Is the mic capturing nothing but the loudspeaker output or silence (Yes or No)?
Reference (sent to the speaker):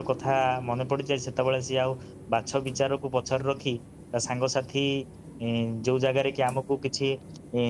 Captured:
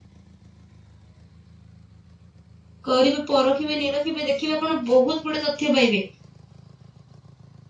No